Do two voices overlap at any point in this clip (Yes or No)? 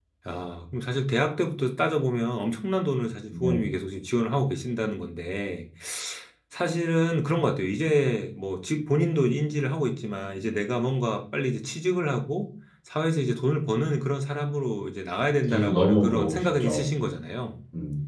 Yes